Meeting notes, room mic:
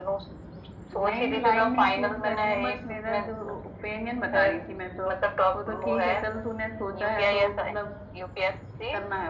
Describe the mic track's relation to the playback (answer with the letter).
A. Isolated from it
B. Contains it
B